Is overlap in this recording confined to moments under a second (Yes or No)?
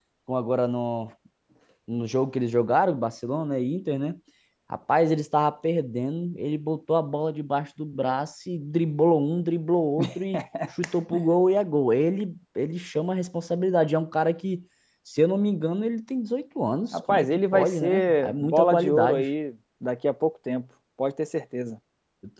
No